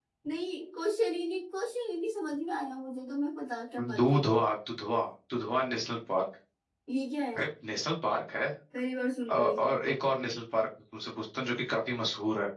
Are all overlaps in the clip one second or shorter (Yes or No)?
Yes